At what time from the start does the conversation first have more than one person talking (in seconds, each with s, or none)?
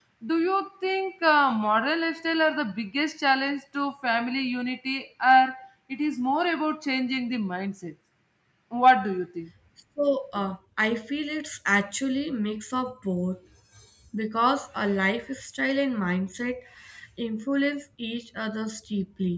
none